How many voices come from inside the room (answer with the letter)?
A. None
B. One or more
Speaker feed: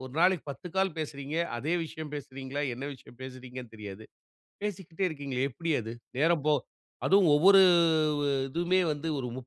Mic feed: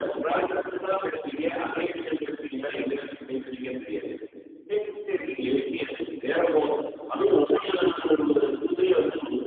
A